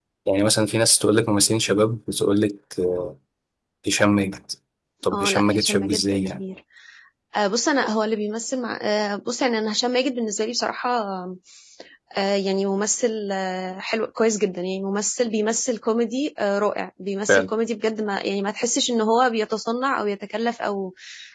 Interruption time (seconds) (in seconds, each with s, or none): 5.1 s